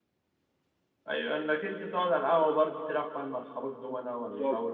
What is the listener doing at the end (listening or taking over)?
taking over